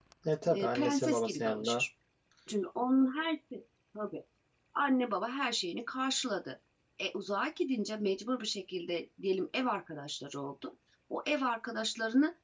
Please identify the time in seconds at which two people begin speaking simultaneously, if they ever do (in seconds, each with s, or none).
0.5 s